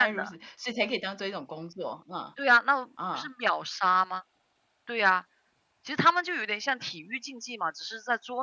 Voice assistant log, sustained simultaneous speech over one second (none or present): none